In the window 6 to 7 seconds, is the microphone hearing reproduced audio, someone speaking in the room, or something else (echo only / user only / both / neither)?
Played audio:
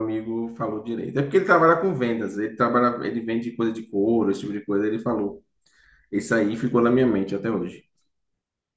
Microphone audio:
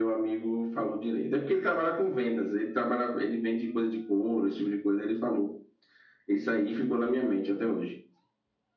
echo only